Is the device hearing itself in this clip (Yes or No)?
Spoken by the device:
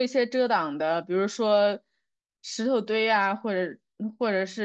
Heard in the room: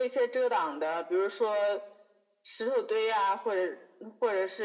Yes